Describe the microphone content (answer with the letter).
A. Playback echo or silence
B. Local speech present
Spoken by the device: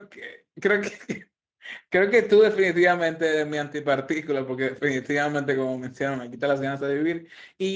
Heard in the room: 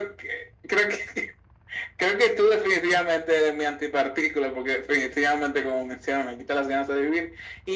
A